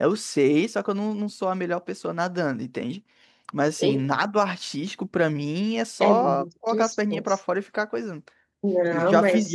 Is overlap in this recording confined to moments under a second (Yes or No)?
No